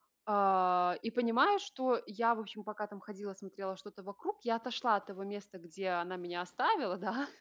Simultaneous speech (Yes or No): No